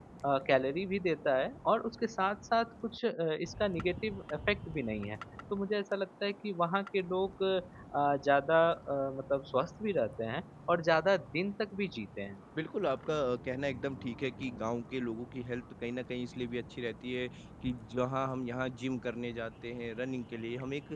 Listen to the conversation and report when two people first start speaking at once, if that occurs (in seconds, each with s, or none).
none